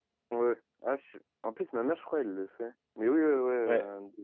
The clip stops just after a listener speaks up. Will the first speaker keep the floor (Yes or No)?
Yes